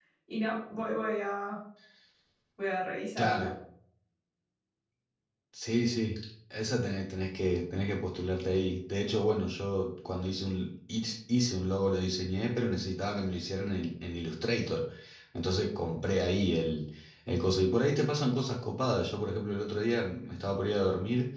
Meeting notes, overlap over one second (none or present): none